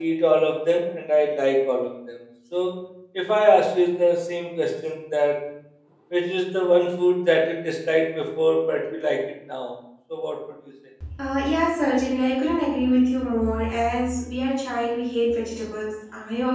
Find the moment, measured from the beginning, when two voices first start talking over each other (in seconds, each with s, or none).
none